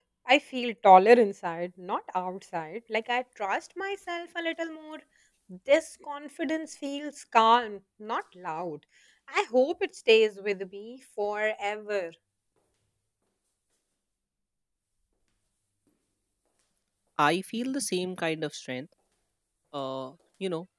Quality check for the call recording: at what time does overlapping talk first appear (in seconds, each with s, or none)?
none